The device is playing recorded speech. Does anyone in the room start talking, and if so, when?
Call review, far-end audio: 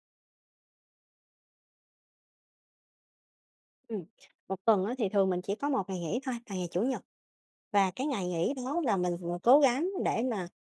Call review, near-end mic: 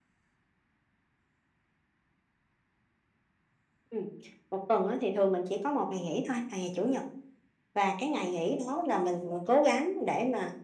none

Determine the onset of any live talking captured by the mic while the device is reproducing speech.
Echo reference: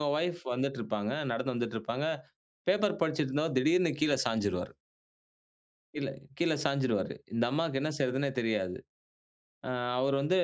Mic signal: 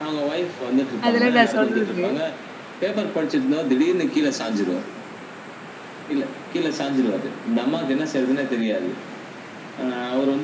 1.1 s

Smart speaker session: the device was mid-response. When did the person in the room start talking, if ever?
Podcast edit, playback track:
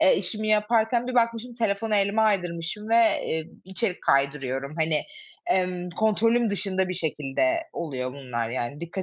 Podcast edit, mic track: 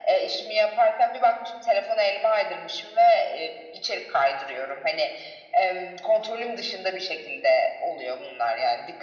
none

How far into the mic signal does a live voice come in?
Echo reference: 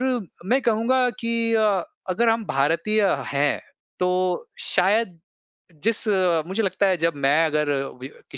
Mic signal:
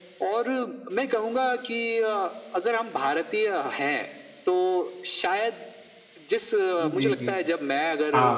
6.8 s

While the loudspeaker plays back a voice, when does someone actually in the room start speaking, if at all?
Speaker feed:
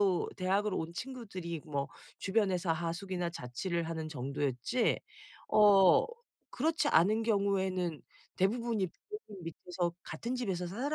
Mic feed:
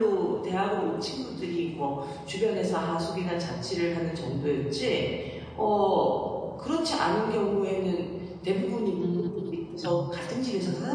8.9 s

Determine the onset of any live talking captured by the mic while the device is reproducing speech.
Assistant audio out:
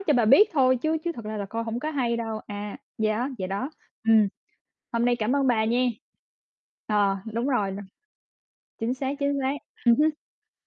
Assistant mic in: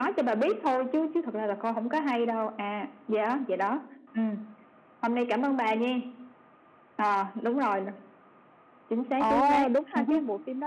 9.2 s

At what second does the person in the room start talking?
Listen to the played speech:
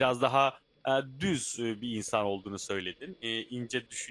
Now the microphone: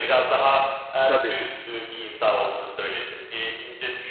1.1 s

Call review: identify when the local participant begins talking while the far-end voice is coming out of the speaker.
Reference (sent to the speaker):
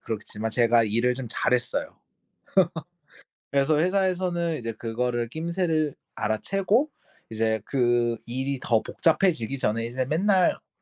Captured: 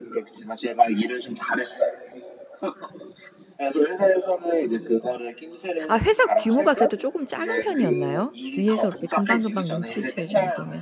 5.9 s

